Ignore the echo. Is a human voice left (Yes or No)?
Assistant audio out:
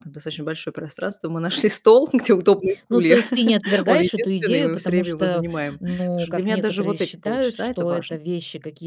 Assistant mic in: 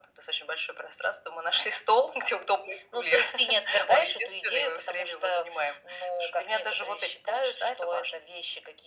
No